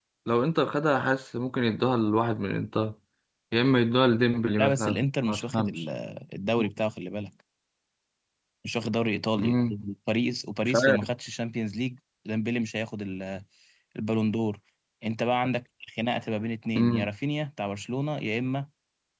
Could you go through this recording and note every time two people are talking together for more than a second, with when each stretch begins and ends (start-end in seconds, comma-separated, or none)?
4.6-5.8